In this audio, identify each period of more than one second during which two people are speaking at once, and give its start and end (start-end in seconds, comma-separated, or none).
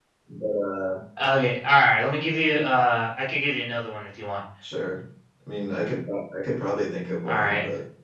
none